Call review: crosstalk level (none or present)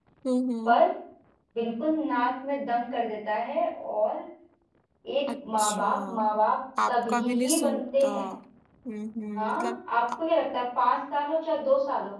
present